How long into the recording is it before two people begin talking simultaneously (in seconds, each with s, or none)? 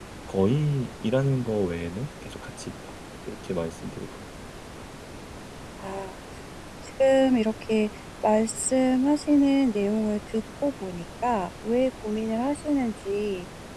none